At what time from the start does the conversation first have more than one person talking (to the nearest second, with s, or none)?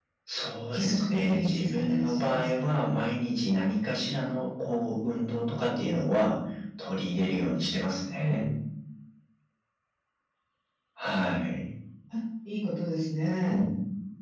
1 s